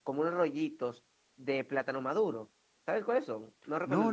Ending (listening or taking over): taking over